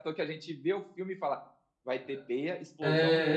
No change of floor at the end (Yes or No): No